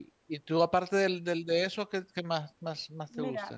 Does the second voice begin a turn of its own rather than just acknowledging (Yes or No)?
Yes